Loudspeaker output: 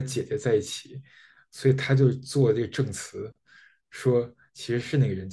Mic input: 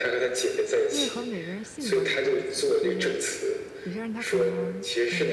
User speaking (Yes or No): Yes